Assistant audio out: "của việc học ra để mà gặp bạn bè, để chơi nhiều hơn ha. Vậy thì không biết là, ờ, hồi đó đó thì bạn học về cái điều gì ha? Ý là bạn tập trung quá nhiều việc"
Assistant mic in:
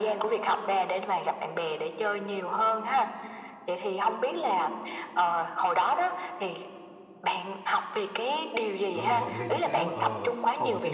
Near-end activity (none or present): present